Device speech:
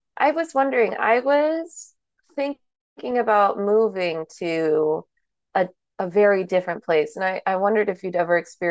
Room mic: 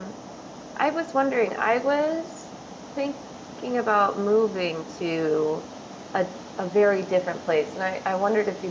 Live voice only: none

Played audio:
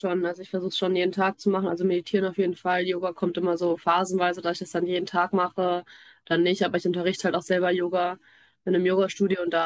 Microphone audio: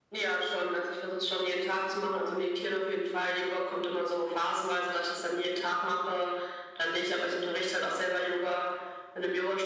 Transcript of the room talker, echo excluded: none

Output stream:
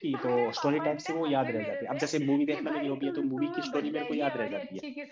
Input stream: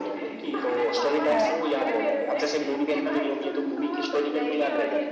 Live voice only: हाँ हाँ हाँ हाँ

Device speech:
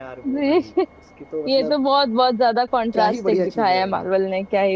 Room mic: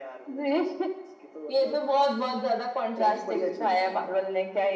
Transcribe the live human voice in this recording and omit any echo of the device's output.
none

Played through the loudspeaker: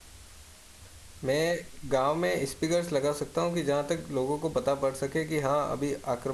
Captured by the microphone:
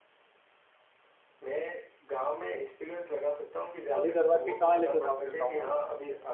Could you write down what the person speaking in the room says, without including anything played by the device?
खाली करवा के कहाँ लेके जाओगे गांव वालों को

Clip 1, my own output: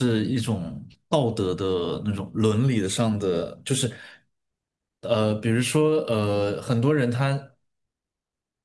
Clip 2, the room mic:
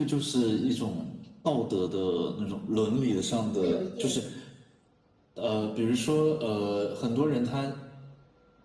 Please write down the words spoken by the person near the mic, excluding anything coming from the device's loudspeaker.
会有一点

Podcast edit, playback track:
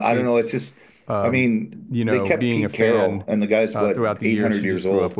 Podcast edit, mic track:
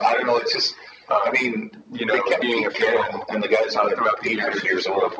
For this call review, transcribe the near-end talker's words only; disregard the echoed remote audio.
none

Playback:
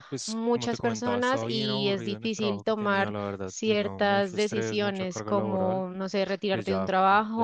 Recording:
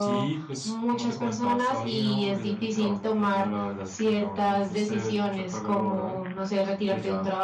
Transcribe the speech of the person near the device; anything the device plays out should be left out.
none

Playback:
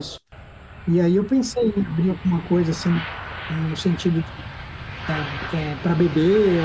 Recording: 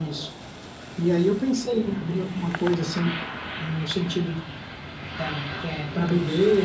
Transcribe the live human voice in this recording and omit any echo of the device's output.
none

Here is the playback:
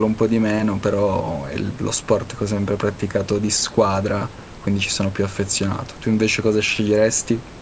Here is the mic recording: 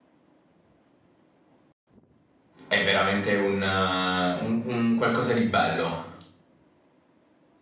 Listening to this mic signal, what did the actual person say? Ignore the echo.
è veramente un, eh, un- un qualcosa di bello

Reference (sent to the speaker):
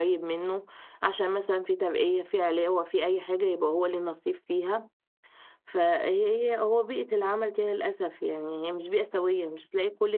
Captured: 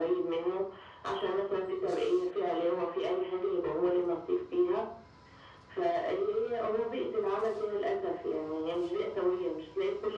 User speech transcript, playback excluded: none

